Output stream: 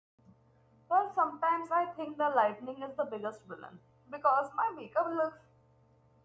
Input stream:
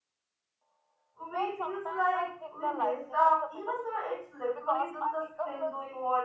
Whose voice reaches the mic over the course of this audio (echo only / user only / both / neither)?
both